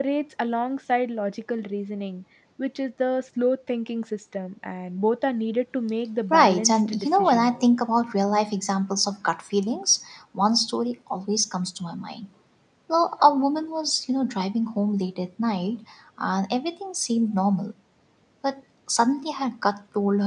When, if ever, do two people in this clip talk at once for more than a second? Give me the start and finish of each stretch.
6.3-7.5

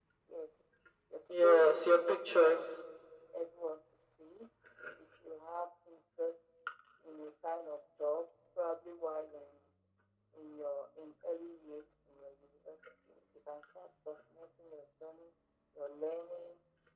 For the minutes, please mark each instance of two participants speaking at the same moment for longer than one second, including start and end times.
1.3-2.6

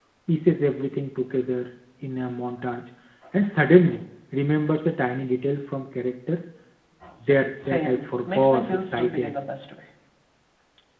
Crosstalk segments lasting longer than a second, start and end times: 7.7-9.3

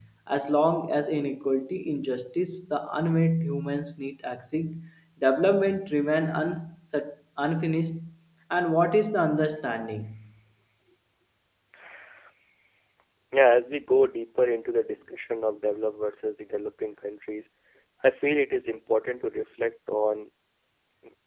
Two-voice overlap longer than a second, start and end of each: none

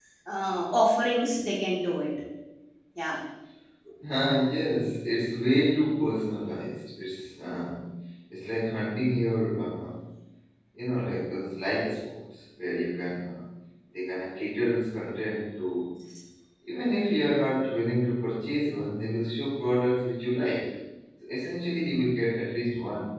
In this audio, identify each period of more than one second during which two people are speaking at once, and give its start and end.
none

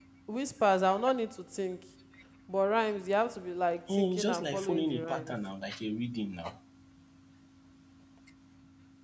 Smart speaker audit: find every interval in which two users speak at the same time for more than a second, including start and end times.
3.9-5.3

